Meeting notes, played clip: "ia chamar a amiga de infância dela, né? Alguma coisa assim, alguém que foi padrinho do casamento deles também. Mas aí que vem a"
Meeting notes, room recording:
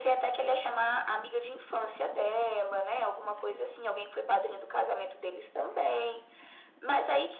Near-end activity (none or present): none